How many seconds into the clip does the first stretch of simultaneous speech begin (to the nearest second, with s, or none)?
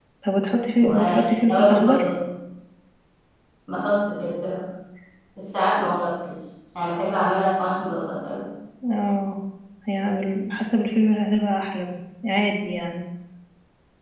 1 s